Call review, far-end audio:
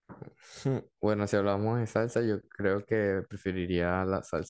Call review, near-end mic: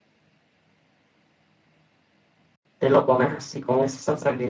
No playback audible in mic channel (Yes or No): Yes